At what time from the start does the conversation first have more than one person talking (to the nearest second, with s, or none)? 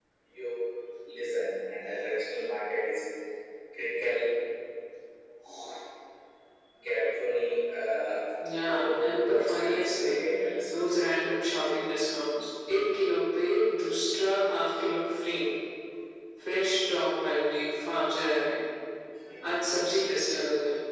9 s